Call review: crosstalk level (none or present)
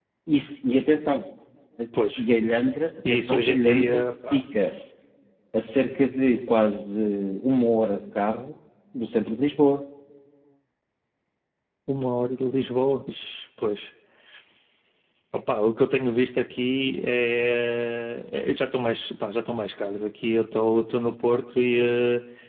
present